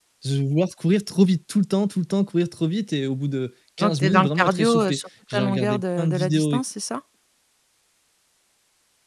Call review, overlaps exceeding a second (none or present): present